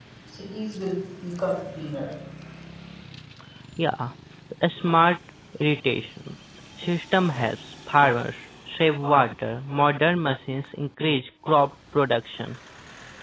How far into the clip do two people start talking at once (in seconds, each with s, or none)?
none